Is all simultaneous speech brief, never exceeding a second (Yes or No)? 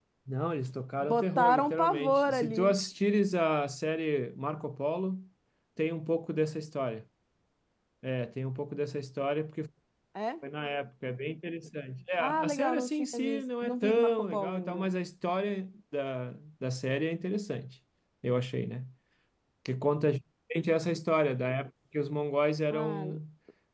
No